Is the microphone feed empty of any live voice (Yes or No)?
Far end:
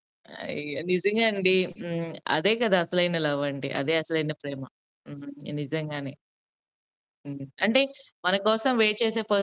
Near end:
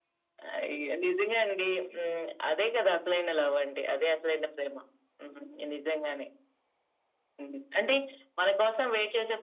Yes